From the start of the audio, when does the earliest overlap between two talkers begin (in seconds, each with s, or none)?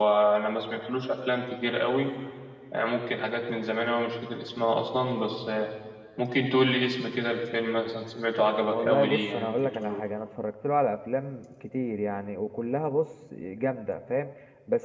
8.7 s